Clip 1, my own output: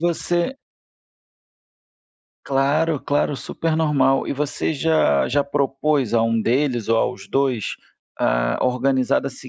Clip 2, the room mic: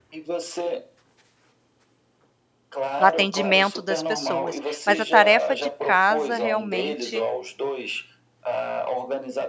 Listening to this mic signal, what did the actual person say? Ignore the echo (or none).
no atendimento das pessoas. Mas a tarefa de casa, realmente,